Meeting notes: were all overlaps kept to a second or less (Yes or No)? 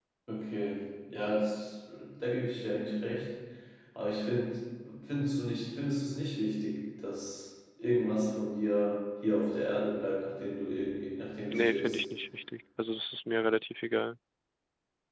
Yes